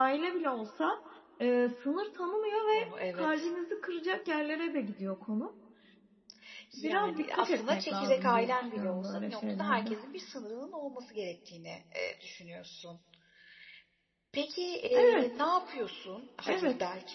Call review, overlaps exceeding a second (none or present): present